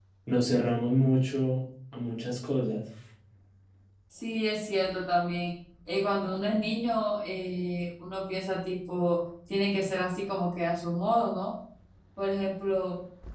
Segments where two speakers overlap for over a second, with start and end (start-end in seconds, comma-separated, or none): none